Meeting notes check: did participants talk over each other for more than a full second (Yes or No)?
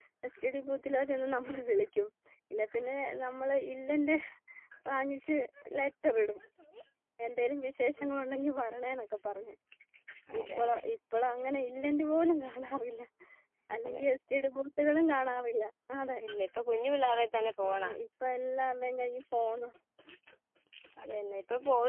No